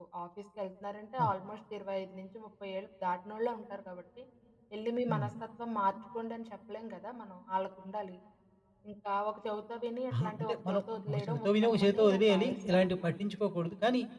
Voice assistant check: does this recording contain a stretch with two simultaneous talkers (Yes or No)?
Yes